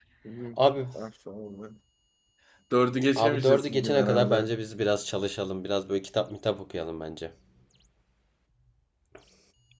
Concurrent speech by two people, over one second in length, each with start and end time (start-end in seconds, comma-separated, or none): 3.2-4.5